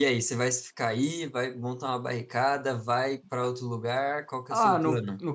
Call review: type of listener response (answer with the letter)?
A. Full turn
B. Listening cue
A